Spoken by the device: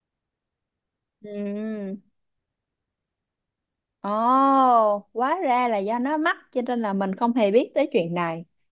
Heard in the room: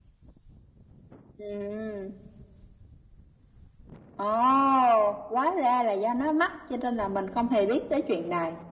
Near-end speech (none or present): none